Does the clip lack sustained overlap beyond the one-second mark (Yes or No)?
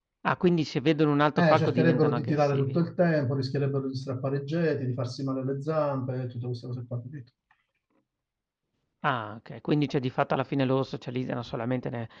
No